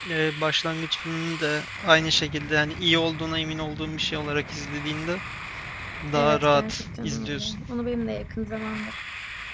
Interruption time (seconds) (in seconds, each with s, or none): 6.2 s